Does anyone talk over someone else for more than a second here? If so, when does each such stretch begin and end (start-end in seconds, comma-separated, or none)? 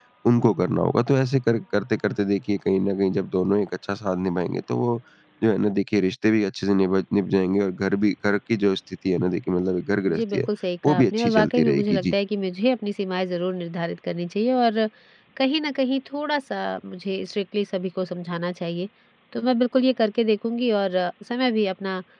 10.9-12.1